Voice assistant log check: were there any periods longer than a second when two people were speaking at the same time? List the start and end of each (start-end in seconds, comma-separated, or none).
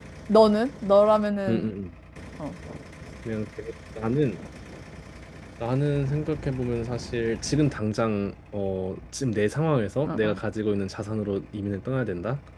none